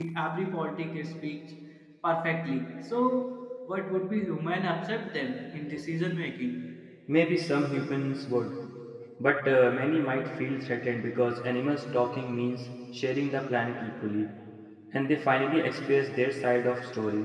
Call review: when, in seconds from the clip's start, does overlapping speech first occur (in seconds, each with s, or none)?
none